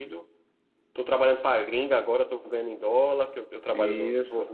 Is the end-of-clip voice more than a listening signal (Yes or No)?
No